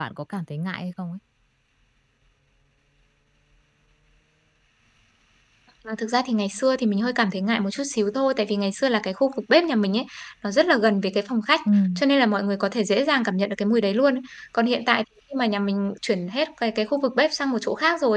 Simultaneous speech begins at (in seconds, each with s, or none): none